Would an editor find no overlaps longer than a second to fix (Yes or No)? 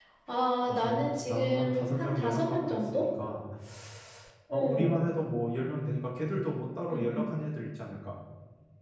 No